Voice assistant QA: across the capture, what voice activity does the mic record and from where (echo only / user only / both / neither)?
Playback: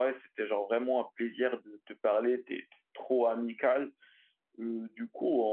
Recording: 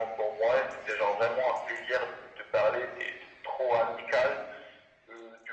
echo only